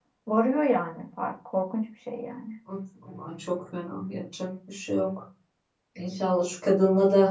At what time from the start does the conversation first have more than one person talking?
none

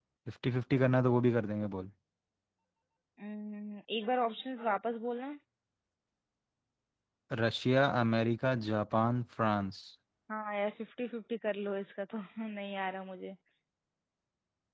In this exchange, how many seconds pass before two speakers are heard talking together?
none

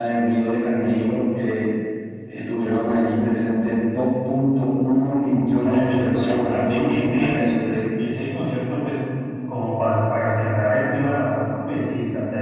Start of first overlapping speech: 5.6 s

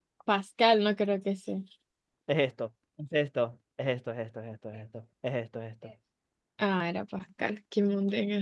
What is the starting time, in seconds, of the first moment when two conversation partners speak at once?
none

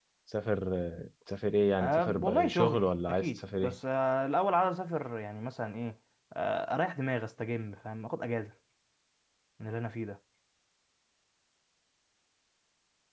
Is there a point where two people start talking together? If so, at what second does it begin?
1.8 s

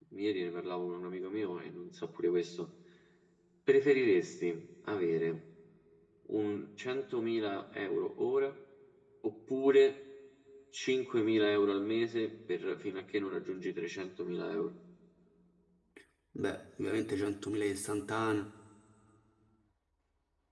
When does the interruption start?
none

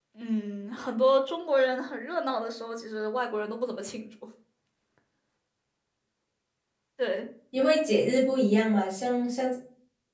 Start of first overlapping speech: none

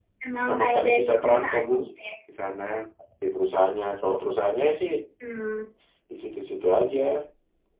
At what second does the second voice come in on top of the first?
0.5 s

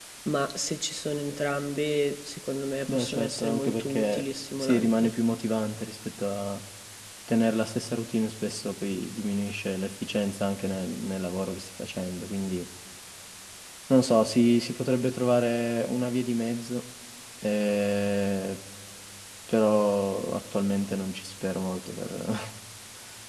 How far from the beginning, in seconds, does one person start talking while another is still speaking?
2.9 s

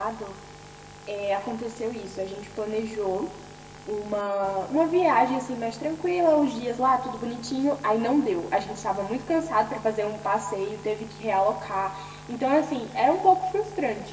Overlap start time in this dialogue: none

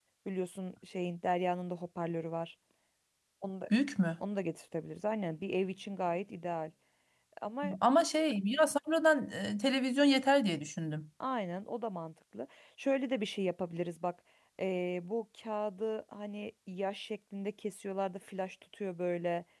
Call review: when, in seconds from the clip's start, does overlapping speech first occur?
none

